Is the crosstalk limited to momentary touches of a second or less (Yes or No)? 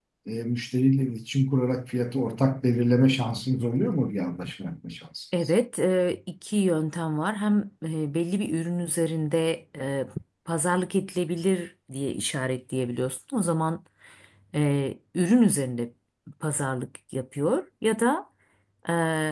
Yes